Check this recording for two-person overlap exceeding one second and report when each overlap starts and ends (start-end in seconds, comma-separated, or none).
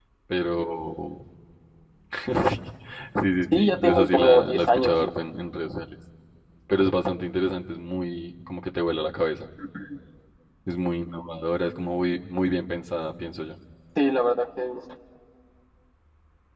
3.5-4.9